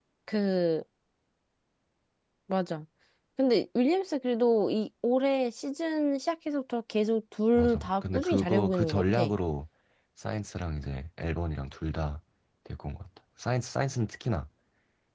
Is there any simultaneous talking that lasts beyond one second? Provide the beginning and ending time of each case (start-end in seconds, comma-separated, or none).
7.5-9.3